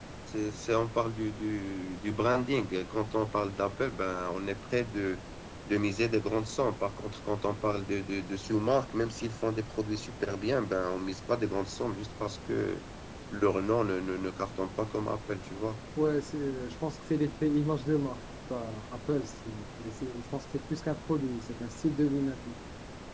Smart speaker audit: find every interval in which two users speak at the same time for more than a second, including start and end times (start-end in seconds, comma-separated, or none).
none